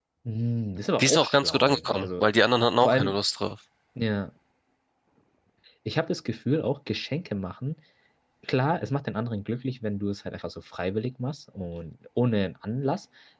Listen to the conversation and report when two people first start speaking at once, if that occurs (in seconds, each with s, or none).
1.0 s